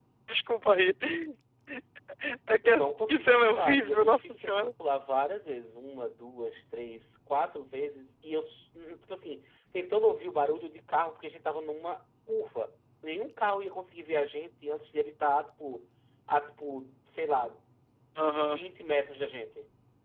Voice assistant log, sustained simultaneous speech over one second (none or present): present